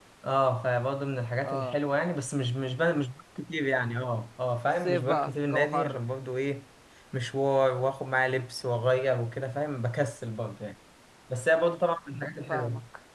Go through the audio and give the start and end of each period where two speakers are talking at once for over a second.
4.8-6.0

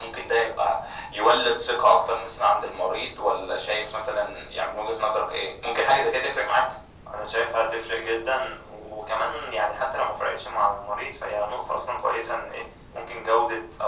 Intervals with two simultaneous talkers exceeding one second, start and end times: none

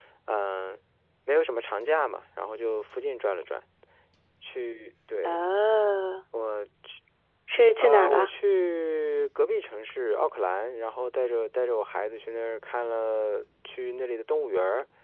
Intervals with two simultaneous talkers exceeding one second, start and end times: none

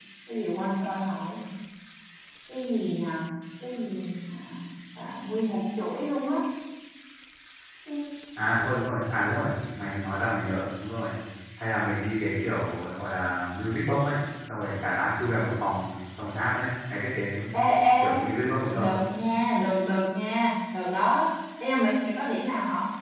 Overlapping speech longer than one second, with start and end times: none

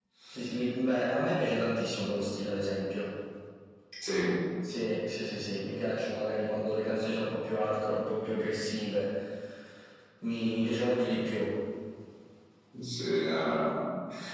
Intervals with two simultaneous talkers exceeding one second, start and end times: none

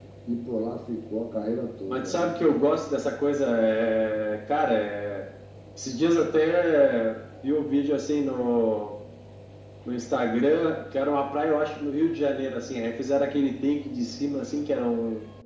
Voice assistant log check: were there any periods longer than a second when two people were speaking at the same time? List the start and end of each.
none

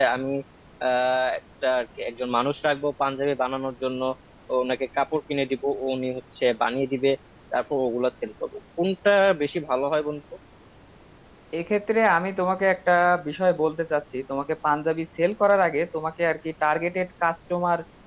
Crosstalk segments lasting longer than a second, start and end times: none

